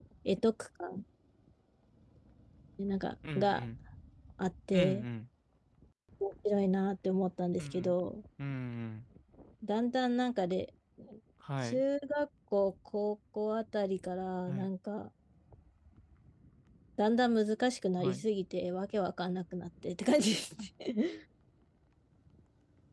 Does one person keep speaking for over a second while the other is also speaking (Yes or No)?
No